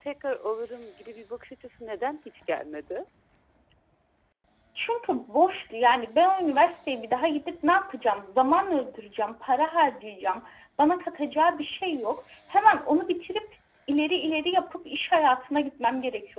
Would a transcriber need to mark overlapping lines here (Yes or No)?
No